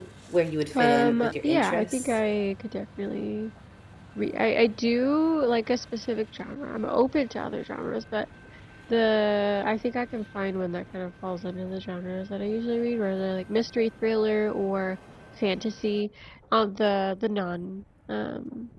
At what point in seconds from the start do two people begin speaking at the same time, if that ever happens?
0.7 s

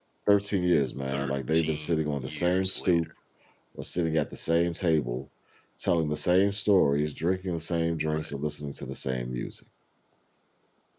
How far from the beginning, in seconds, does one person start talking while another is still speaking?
1.1 s

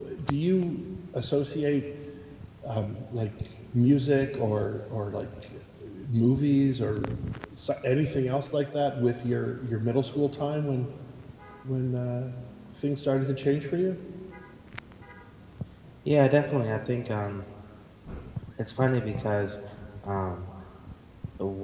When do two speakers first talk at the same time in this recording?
none

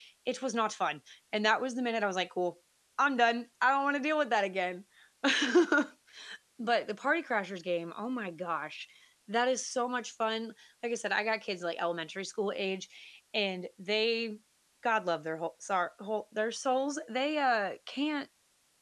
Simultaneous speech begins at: none

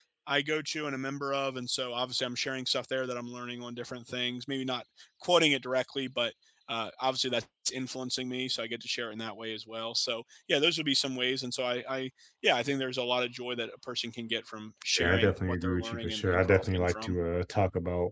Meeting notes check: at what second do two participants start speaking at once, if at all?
15.0 s

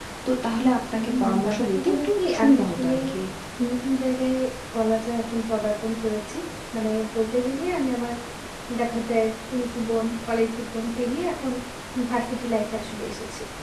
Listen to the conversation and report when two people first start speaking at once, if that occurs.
1.0 s

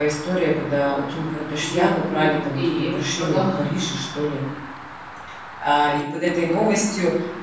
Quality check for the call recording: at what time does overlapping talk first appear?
1.6 s

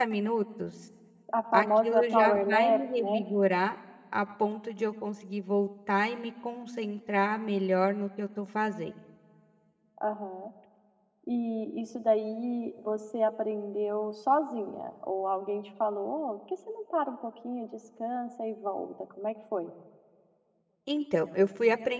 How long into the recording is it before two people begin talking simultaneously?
1.5 s

